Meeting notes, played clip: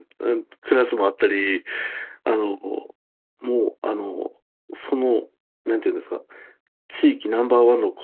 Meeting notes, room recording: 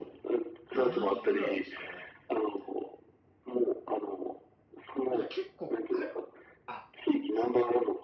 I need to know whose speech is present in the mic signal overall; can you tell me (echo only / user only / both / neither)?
both